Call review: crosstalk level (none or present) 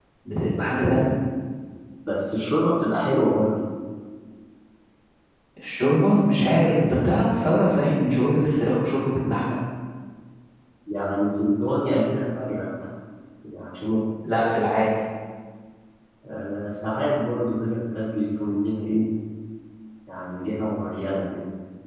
none